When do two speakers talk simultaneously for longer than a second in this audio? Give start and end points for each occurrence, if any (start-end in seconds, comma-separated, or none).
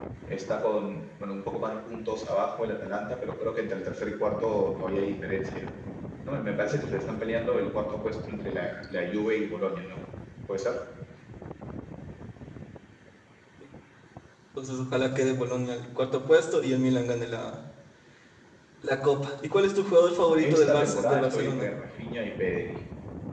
20.4-21.7